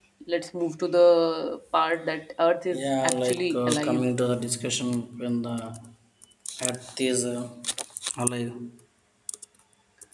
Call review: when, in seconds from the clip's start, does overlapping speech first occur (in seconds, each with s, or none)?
2.7 s